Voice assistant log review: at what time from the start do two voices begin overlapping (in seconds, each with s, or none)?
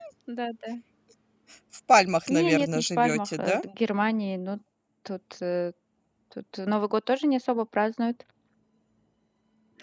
2.3 s